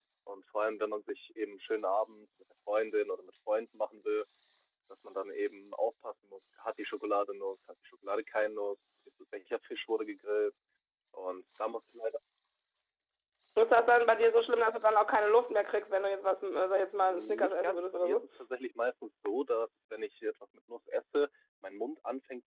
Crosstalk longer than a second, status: present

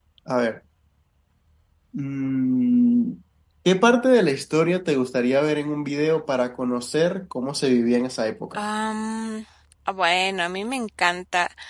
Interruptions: none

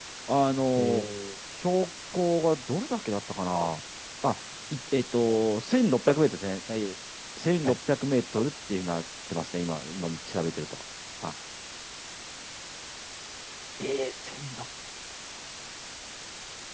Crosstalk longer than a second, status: none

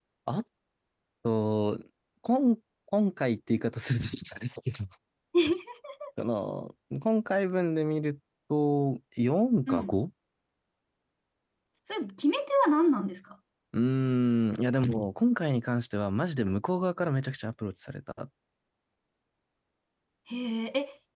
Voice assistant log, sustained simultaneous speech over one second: none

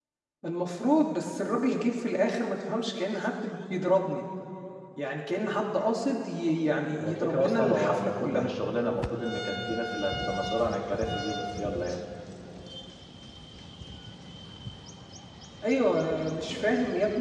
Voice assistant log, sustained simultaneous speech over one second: present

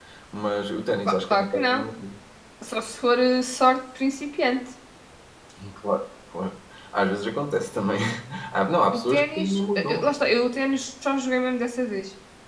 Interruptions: present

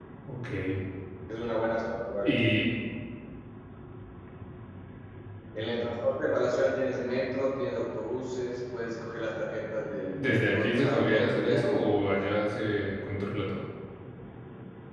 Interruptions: present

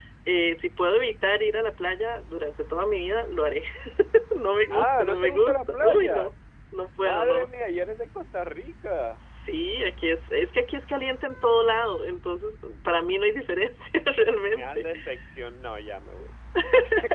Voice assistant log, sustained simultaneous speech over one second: present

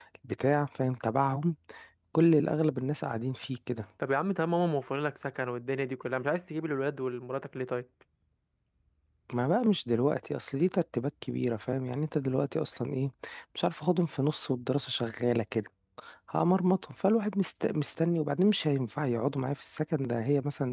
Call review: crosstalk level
none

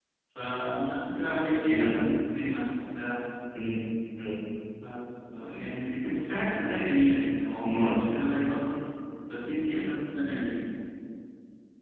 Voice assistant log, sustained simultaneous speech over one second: none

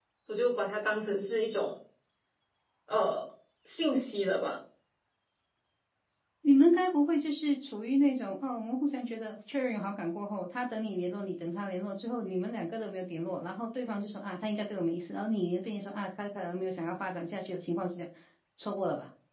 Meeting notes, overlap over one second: none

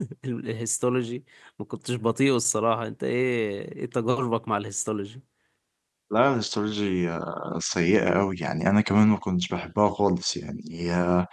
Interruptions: none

